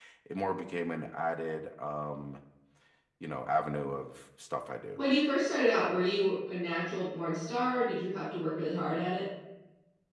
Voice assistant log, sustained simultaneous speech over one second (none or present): none